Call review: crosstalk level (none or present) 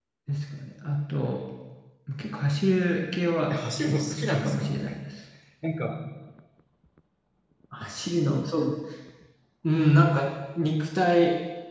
present